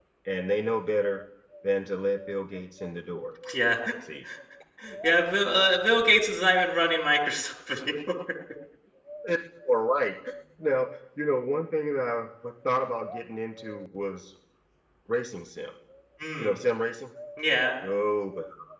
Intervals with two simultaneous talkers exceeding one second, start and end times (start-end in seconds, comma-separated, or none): none